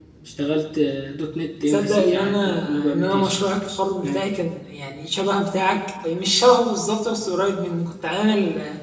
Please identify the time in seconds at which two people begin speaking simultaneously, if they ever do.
1.7 s

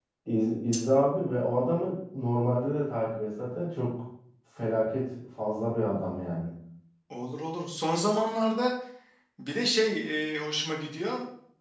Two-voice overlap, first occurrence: none

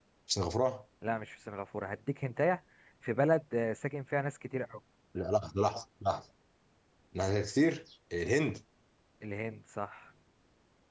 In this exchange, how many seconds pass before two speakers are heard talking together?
none

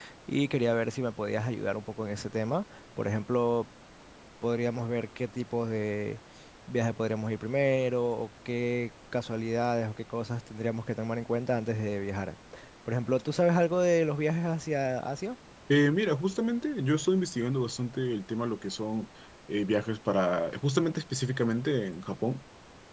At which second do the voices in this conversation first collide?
none

